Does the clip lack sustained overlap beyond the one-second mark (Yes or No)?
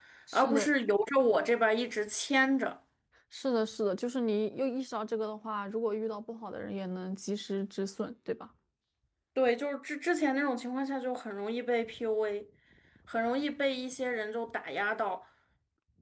Yes